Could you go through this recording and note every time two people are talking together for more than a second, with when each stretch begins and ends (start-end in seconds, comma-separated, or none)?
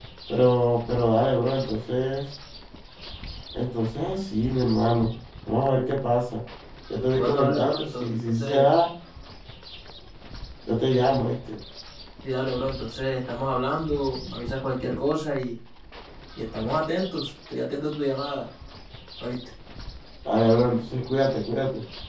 7.1-8.7